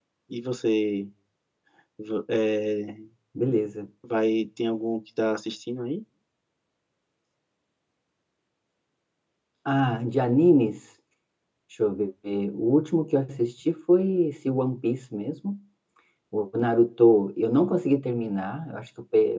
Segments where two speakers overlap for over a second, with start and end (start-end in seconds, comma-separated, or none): none